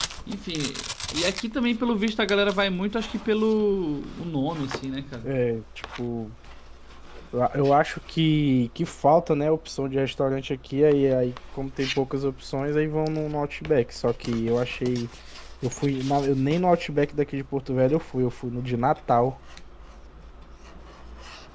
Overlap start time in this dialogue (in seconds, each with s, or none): none